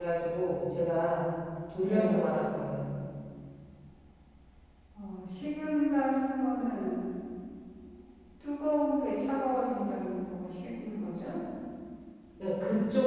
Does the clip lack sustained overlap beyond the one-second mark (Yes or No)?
Yes